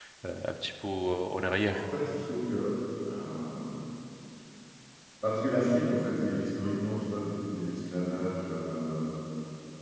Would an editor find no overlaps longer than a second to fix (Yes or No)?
Yes